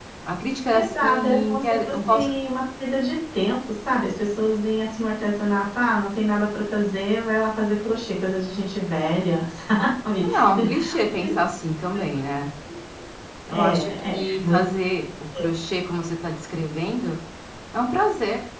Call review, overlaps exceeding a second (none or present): present